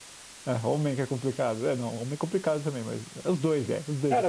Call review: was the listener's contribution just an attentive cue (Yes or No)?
No